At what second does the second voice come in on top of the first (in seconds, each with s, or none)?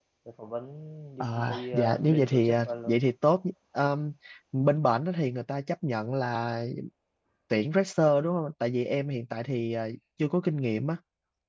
1.2 s